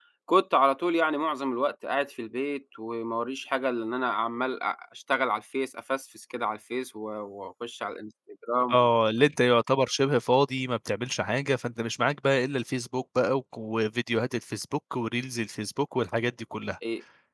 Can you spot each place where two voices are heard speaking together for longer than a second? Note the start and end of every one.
none

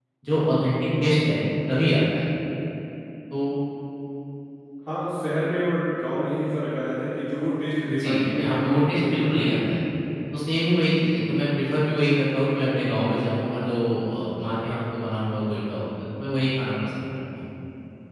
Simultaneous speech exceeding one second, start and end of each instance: 7.9-9.6

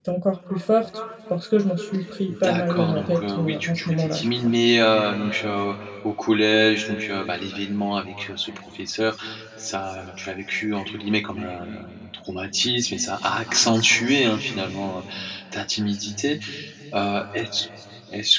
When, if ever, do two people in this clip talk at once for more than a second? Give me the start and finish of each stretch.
2.3-4.3

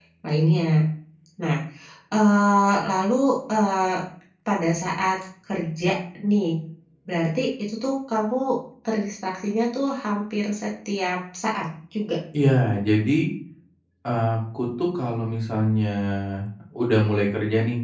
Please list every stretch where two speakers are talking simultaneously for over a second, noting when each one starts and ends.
none

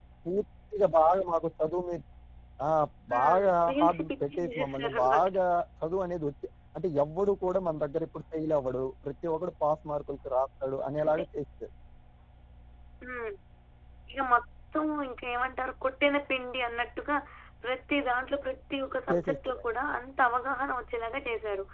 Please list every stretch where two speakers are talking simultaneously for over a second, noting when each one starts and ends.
3.2-5.3

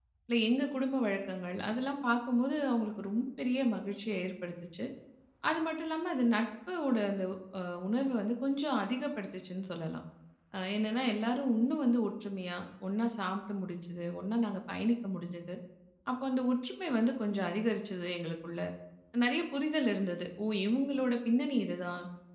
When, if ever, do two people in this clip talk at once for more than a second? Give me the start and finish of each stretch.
none

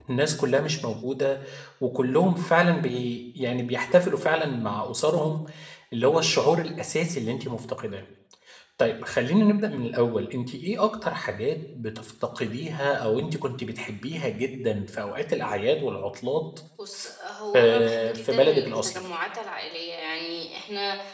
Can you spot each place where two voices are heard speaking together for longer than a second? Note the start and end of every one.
17.6-19.0

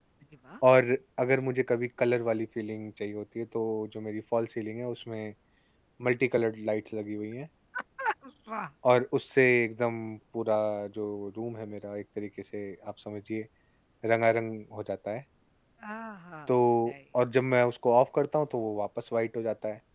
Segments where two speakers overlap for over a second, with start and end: none

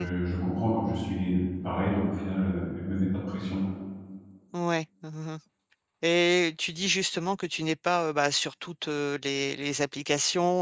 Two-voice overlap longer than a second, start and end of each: none

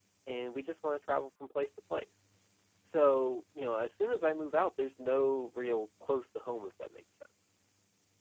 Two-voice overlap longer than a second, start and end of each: none

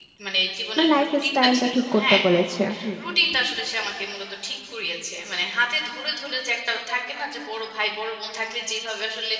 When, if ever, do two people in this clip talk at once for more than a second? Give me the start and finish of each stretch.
0.8-2.2

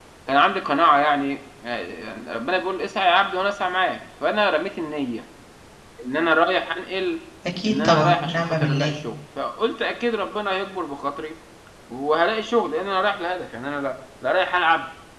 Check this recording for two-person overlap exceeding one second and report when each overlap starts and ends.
7.7-8.9

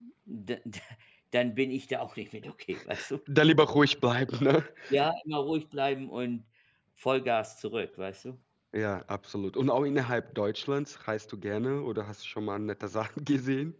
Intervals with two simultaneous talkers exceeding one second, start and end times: none

